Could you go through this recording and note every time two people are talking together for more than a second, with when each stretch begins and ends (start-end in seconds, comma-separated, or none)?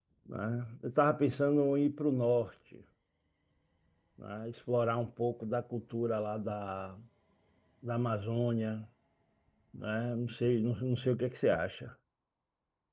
none